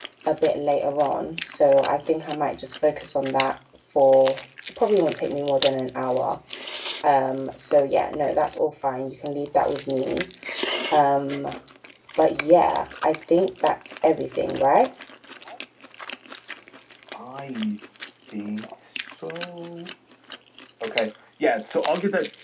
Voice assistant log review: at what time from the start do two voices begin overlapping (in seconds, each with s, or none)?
none